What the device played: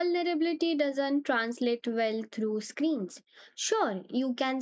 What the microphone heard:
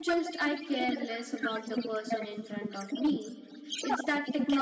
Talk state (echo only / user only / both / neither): both